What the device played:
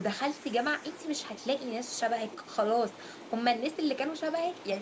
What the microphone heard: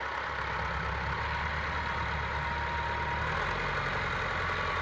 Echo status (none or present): none